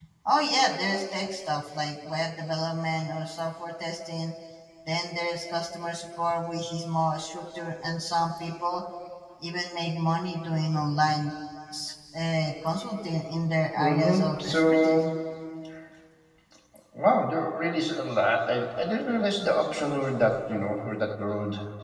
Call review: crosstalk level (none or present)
present